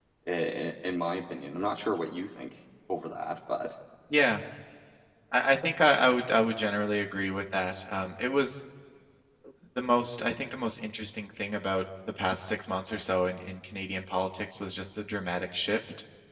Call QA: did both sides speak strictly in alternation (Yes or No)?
Yes